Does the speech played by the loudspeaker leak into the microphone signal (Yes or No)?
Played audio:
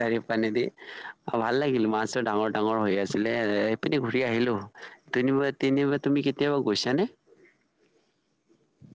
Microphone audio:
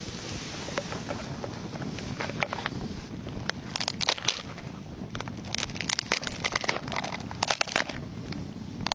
No